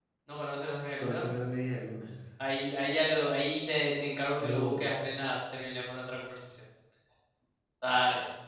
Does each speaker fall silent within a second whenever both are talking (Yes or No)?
Yes